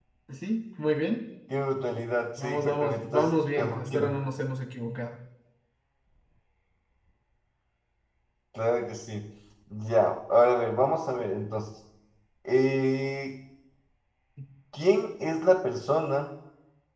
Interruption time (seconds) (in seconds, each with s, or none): 2.4 s